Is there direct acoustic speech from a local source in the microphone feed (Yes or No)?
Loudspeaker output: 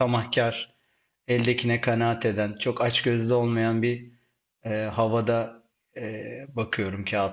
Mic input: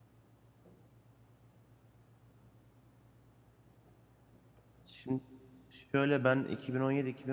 Yes